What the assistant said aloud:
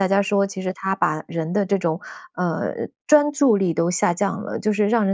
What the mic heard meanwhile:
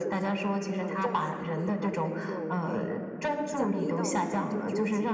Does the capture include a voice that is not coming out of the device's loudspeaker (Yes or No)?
Yes